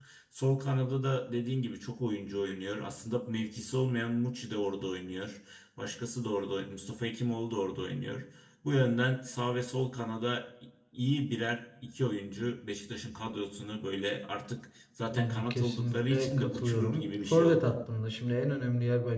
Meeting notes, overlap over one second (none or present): present